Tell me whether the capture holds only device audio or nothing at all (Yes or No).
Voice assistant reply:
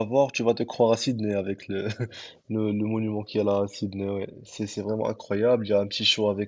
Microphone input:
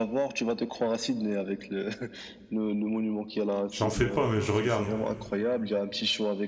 No